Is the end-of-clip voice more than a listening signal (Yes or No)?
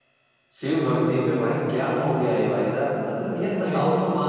No